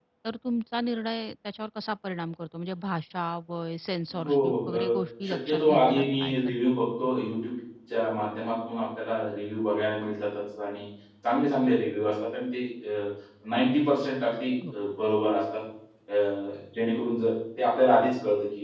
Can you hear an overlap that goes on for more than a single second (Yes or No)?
Yes